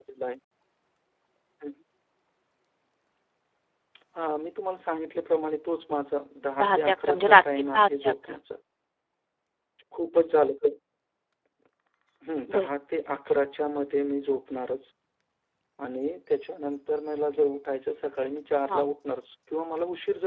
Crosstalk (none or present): present